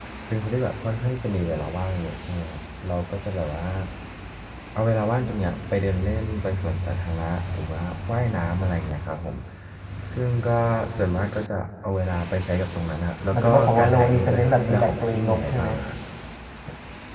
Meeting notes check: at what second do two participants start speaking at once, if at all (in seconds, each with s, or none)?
13.3 s